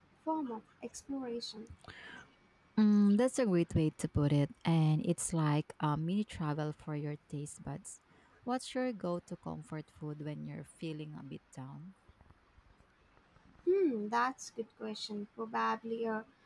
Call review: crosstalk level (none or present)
none